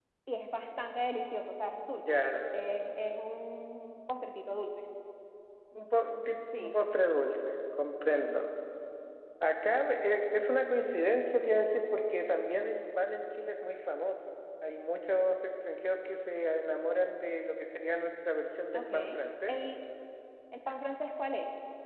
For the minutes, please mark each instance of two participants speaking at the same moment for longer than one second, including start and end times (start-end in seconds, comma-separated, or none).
none